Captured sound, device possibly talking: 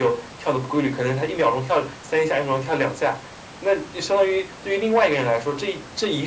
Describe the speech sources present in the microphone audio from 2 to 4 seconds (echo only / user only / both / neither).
echo only